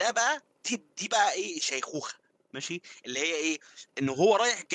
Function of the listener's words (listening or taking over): listening